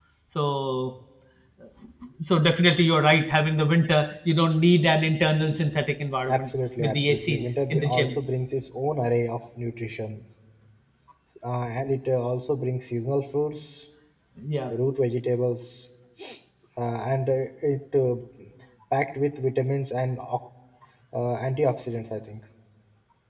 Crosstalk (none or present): present